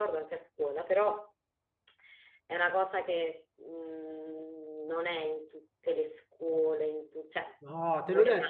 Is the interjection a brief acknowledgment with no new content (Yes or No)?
No